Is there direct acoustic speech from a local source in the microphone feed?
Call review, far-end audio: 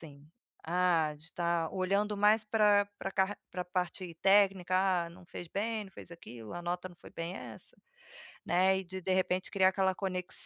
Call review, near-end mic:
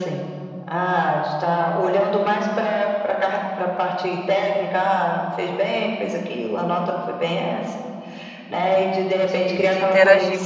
Yes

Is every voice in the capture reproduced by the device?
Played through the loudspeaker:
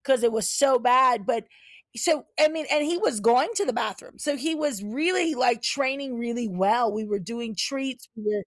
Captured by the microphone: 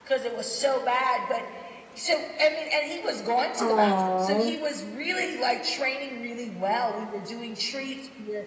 No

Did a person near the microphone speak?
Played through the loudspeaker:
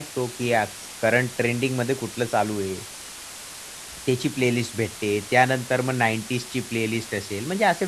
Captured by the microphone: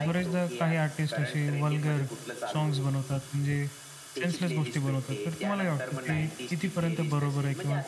Yes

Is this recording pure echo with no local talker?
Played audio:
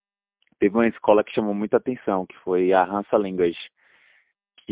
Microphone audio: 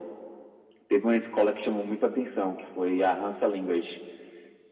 Yes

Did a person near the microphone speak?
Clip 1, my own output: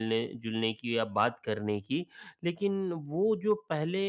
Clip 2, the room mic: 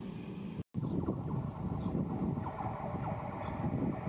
No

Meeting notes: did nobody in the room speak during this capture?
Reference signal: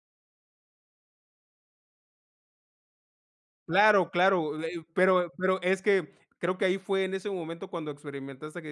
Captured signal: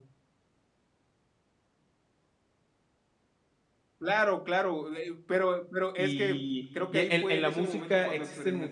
No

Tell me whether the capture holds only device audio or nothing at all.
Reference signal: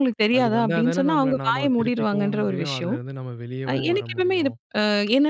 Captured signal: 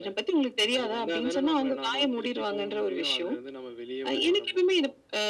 Yes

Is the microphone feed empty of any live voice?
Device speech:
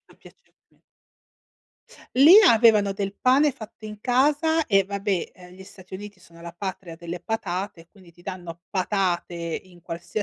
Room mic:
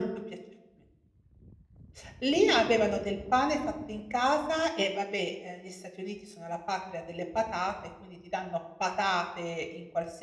Yes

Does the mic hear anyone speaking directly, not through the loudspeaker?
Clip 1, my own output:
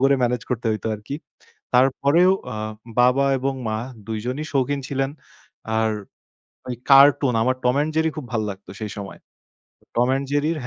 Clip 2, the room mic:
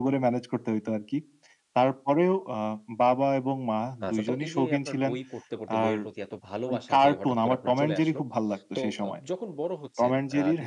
Yes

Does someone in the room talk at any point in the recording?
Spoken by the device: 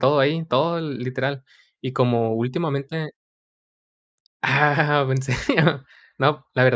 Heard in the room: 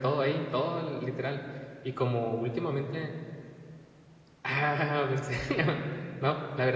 No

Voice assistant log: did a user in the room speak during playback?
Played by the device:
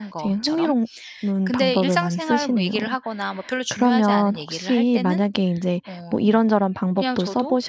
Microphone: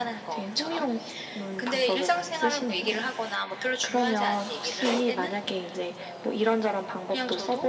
No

